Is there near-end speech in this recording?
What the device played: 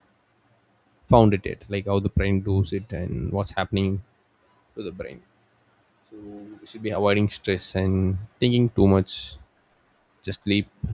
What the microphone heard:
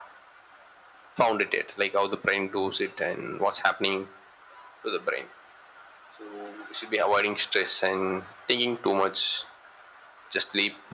No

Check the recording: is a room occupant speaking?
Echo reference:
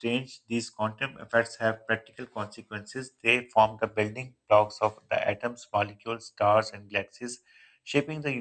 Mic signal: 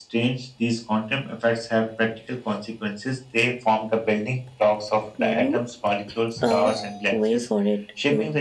Yes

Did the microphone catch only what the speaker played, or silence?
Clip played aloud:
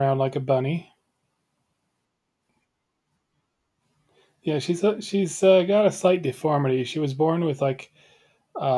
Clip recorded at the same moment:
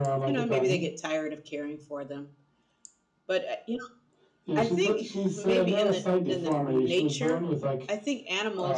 No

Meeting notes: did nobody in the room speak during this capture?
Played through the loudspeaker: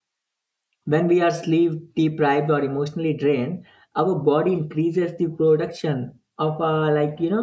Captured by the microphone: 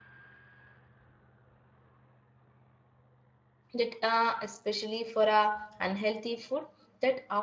No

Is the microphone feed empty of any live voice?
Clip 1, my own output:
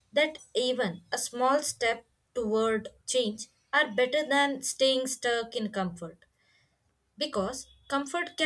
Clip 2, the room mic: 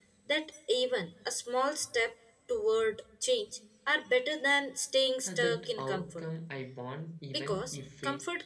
No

